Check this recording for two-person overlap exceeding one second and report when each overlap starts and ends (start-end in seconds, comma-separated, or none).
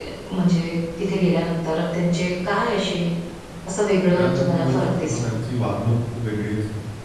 4.1-5.4